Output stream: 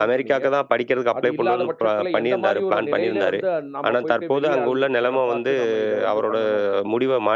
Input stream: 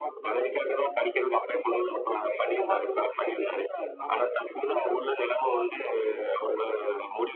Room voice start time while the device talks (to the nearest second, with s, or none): none